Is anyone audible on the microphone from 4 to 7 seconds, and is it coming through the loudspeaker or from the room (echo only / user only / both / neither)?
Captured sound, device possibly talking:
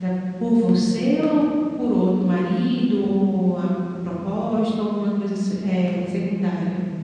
user only